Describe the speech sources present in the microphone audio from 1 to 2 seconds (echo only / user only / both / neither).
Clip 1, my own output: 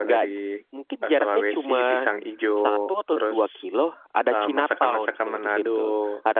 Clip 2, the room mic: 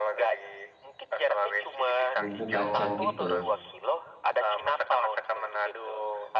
echo only